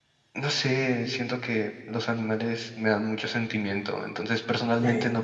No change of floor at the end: Yes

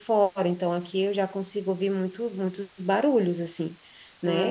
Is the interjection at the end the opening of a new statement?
No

